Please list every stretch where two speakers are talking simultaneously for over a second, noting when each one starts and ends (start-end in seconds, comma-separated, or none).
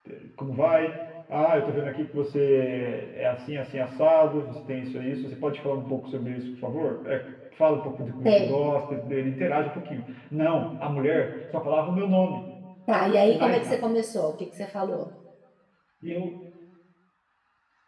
none